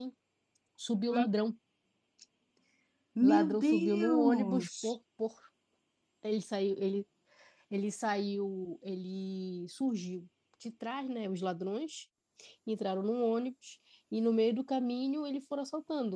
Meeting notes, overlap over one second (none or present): present